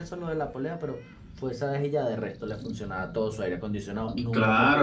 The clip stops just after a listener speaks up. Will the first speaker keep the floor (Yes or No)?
No